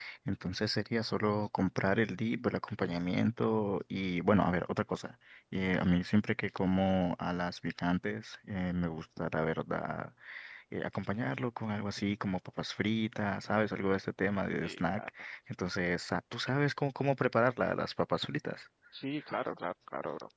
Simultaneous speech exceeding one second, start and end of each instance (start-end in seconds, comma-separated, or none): none